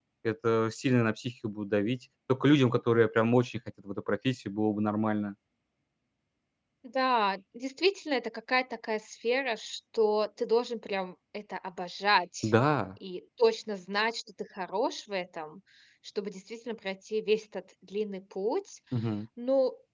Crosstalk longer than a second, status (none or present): none